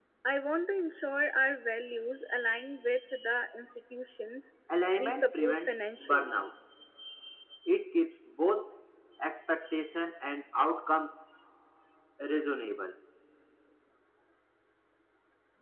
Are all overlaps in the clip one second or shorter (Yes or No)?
No